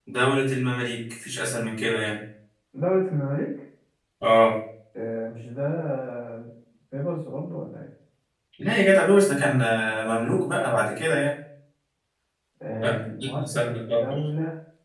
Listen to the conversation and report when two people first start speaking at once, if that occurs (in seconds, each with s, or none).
12.8 s